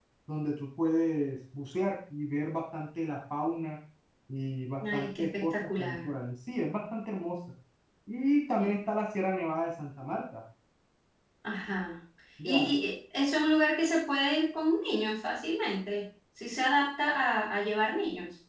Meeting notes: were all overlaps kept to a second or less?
No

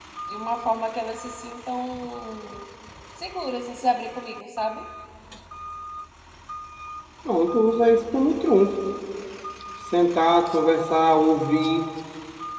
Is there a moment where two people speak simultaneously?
No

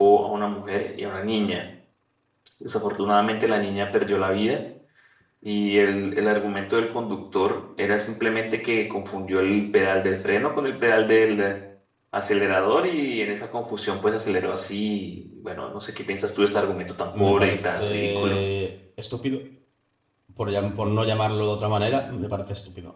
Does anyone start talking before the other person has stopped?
Yes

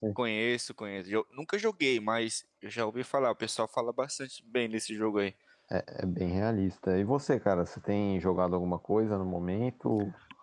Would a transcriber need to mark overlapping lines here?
No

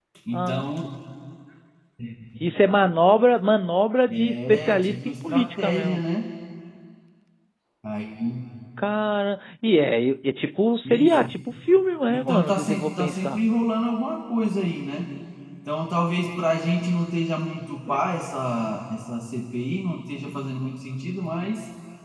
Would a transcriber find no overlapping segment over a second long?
No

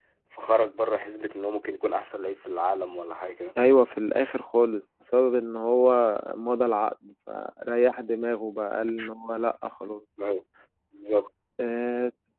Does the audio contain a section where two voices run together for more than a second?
No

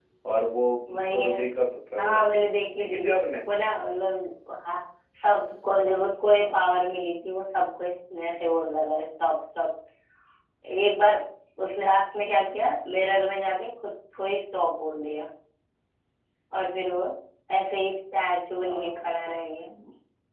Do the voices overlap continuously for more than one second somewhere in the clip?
No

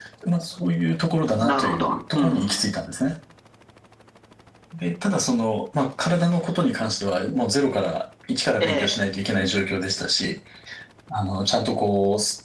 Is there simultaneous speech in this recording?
Yes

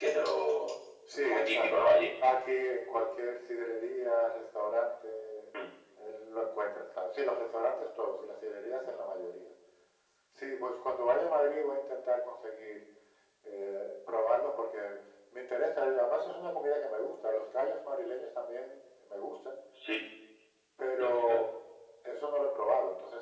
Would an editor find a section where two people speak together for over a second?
No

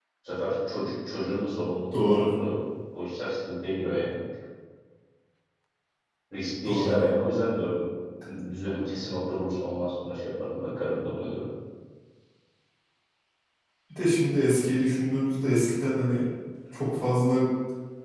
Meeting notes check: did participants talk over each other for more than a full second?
No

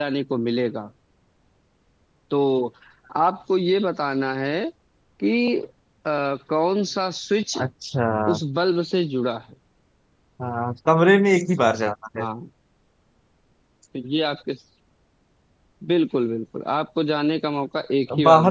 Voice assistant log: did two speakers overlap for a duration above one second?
No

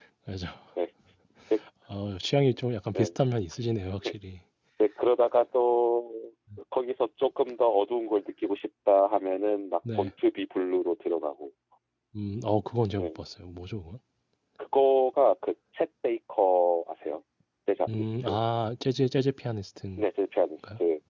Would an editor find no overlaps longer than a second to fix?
Yes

